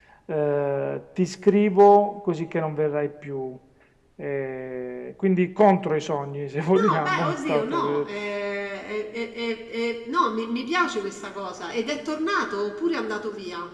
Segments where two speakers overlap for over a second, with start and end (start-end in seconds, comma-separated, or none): 6.8-8.1